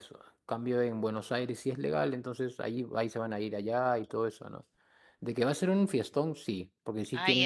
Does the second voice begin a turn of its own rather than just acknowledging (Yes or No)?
Yes